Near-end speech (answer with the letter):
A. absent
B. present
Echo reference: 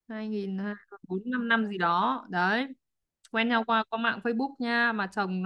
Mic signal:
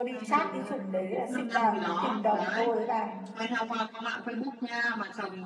B